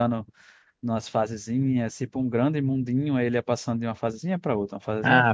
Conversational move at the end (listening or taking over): taking over